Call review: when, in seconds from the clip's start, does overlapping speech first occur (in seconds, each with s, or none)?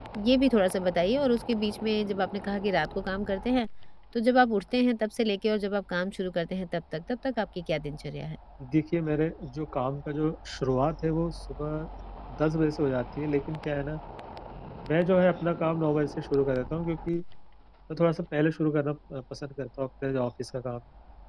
none